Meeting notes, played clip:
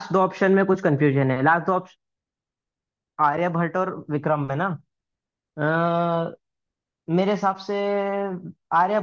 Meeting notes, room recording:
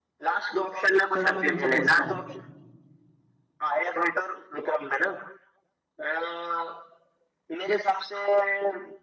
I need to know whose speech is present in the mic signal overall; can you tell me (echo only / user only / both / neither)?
both